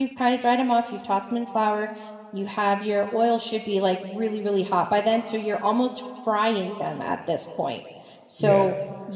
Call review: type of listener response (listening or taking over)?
listening